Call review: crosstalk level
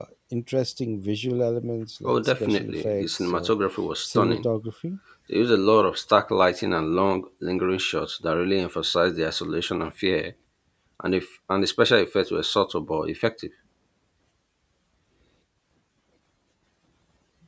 present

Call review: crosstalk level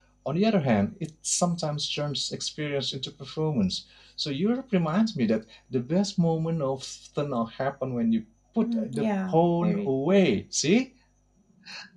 present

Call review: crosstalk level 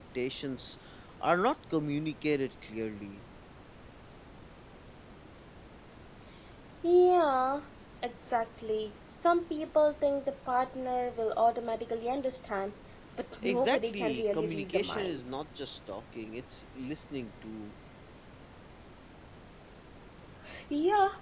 present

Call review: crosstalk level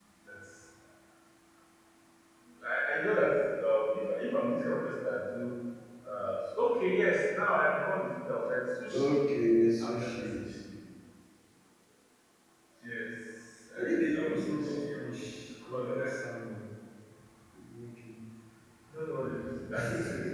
present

